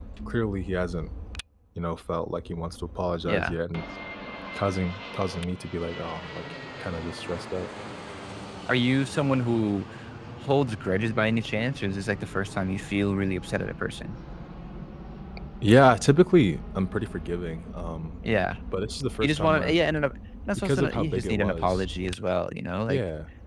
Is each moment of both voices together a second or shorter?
No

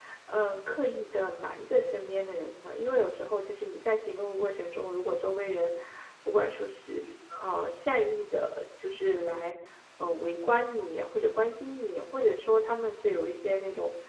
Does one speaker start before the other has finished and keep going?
No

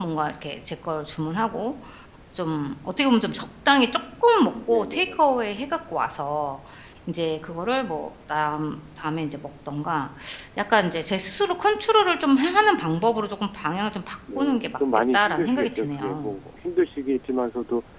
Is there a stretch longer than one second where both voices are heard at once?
Yes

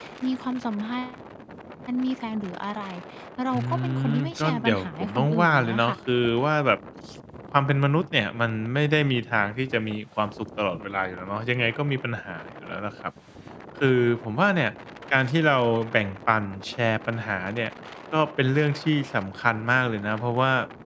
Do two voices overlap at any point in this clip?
Yes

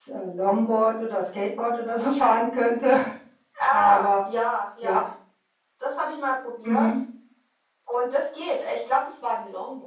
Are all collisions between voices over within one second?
Yes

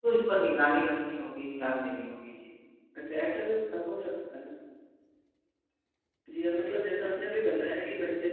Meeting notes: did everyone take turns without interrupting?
Yes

